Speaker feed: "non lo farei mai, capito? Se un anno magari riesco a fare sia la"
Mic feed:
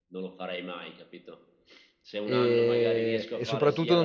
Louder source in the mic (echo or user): user